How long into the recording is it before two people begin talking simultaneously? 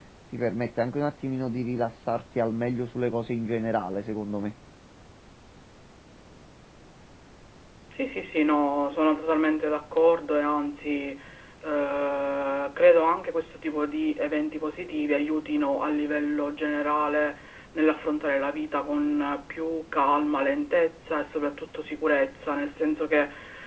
none

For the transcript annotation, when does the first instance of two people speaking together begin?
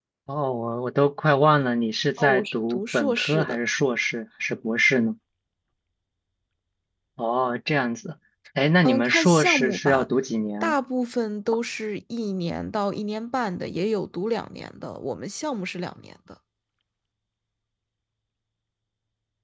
2 s

